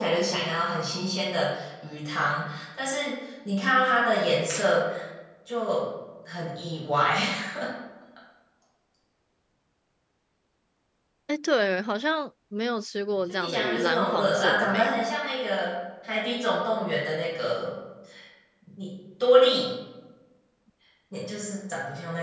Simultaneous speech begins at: 13.3 s

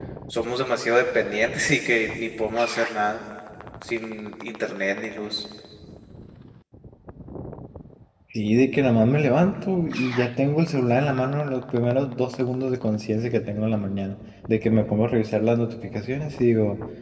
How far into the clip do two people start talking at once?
none

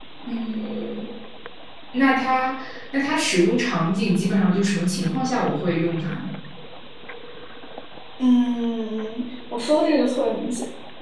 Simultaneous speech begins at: none

